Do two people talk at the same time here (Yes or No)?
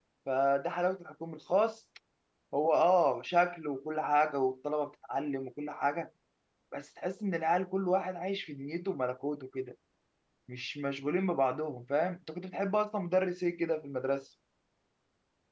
No